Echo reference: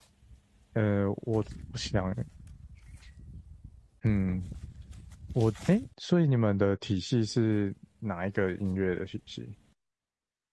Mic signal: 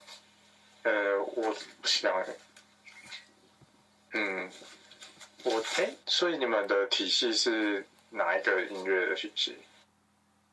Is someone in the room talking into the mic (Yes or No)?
No